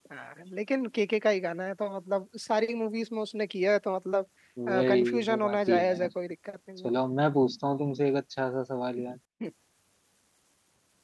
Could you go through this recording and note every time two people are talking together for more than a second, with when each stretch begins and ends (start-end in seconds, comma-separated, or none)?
4.9-6.1